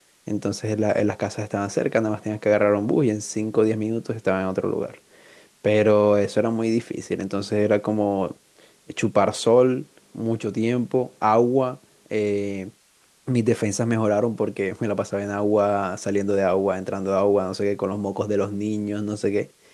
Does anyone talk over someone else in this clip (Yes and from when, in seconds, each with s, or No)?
No